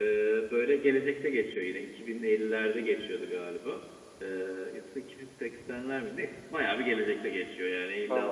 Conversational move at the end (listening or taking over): listening